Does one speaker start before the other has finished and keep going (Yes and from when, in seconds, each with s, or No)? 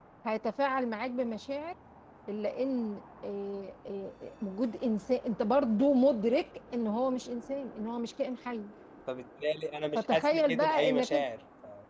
Yes, from 10.0 s